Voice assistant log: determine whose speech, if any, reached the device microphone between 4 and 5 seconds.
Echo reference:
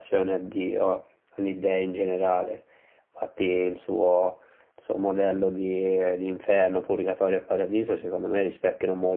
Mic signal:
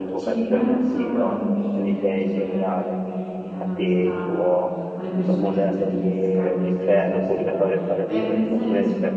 both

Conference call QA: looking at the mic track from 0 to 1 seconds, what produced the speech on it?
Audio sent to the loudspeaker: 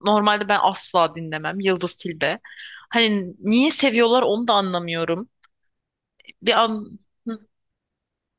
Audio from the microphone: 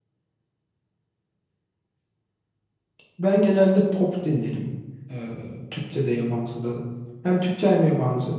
neither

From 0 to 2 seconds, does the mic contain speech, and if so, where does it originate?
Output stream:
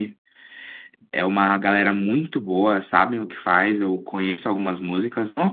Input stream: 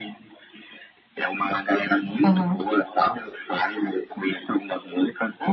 echo only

